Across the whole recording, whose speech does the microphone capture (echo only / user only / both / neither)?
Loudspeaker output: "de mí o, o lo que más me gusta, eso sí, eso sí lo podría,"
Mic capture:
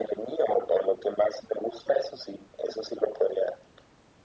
echo only